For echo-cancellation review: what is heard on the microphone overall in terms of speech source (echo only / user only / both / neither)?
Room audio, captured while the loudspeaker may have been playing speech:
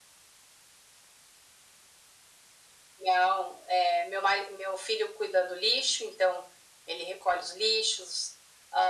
echo only